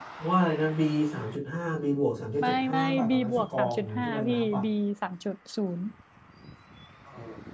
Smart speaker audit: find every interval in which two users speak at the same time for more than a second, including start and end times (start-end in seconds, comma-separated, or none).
2.4-4.6